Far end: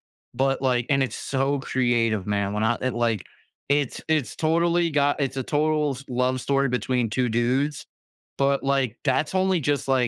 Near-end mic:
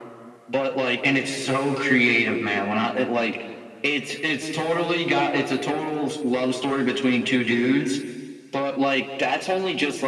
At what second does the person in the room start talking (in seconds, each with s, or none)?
none